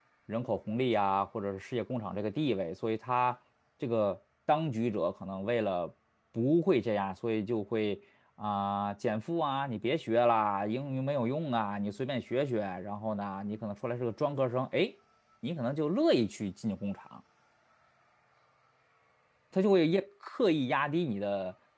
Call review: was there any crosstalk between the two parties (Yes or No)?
No